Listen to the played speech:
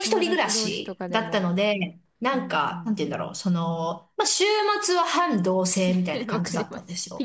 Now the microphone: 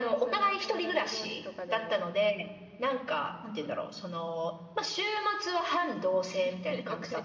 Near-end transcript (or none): none